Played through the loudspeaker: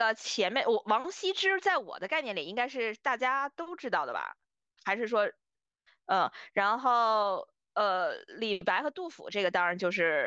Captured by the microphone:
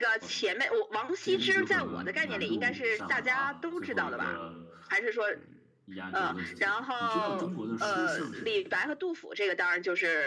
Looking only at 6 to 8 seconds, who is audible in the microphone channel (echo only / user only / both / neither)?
both